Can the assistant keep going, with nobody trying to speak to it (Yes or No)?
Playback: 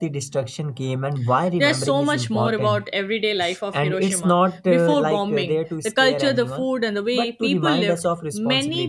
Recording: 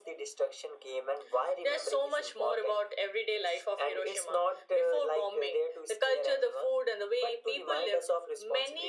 Yes